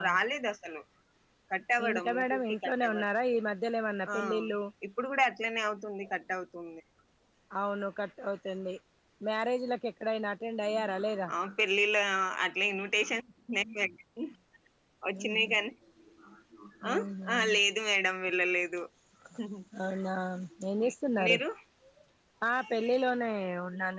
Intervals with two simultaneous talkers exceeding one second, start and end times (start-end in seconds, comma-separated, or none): 1.9-3.1